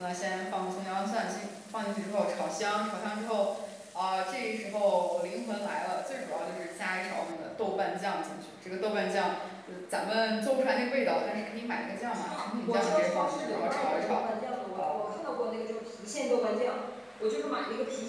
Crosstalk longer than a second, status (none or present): present